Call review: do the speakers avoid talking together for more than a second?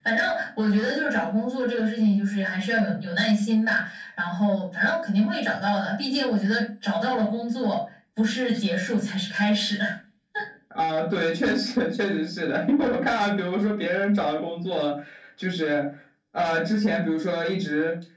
Yes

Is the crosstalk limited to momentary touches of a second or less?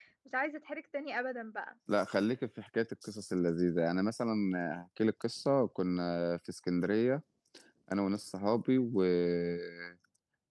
Yes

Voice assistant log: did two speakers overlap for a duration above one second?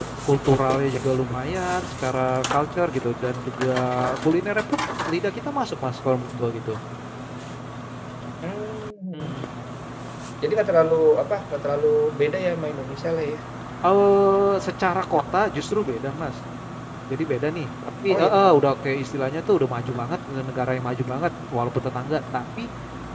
No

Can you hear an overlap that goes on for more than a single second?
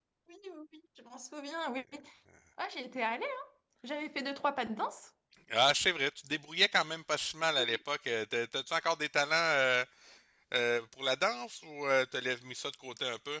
No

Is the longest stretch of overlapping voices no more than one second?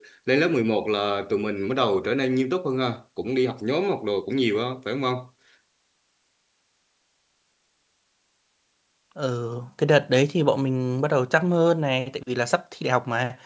Yes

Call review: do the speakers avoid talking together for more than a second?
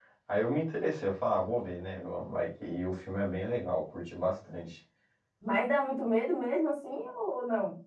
Yes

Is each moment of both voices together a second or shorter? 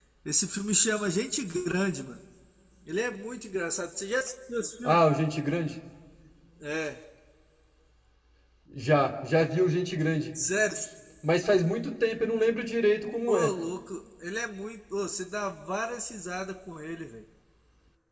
Yes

